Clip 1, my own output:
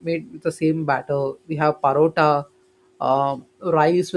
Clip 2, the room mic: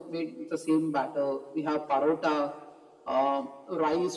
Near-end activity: none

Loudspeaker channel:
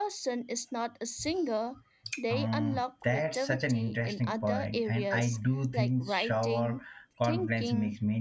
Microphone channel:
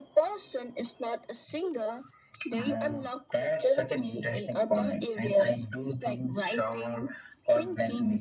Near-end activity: none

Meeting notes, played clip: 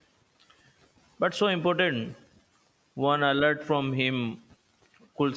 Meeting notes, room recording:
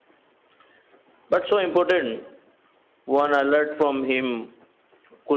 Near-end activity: none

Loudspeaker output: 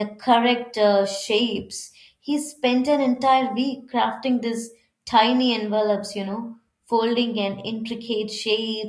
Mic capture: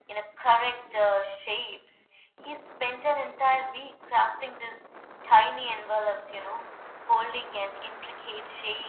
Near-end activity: none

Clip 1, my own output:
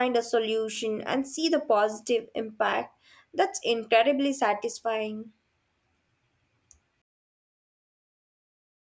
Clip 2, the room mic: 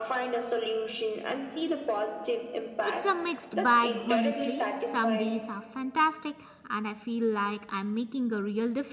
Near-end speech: present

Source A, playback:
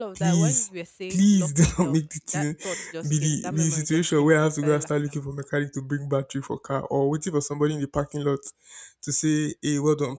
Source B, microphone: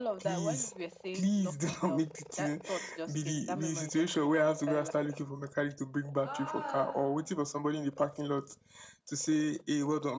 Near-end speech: present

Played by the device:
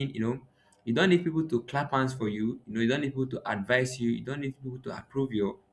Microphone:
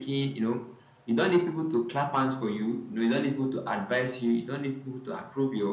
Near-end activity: none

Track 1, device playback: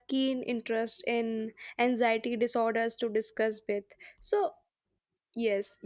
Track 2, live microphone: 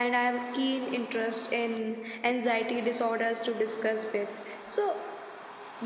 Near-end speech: none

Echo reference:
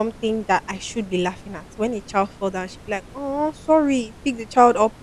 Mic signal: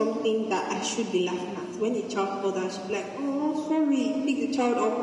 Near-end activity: none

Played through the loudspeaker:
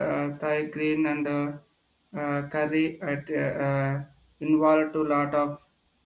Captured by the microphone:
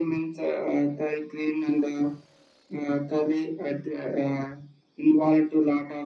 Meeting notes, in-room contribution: none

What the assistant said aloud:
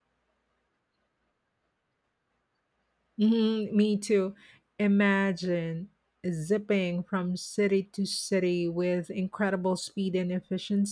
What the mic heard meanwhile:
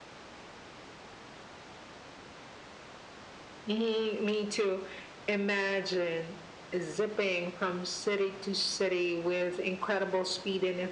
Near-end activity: none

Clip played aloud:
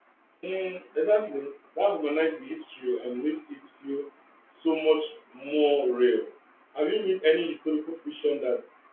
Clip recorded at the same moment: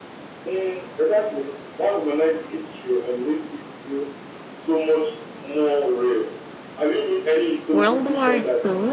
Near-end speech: present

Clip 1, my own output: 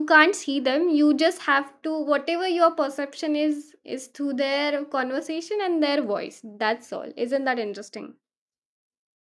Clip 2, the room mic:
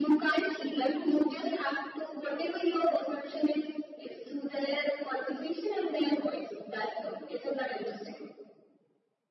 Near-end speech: none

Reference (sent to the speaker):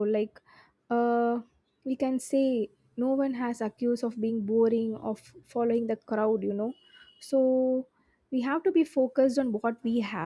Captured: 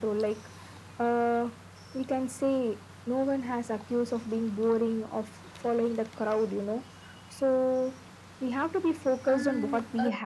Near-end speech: present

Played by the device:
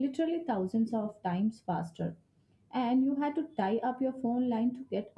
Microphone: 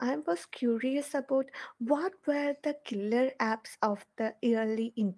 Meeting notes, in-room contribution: present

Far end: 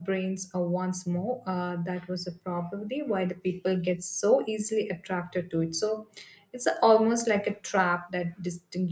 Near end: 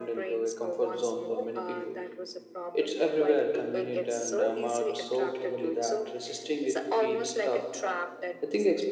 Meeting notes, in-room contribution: present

